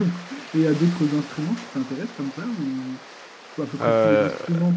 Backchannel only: Yes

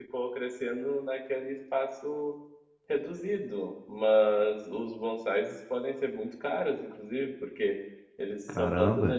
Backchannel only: Yes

